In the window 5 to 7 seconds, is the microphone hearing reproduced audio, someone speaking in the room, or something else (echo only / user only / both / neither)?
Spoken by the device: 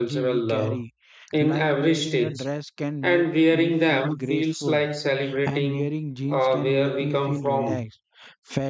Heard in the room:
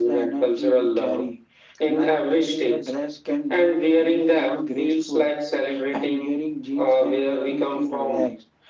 echo only